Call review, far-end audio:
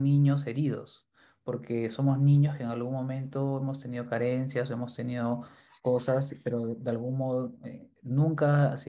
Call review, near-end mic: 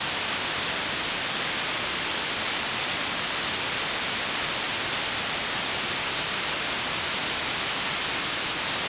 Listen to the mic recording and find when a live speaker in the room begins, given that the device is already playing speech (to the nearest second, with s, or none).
none